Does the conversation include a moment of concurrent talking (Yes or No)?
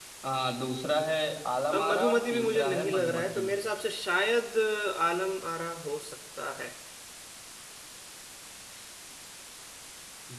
Yes